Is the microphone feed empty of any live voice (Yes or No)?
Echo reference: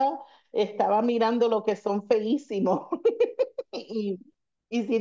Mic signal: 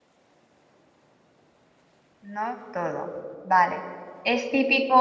No